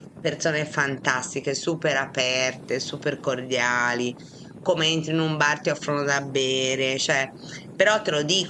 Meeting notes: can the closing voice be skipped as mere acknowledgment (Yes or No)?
Yes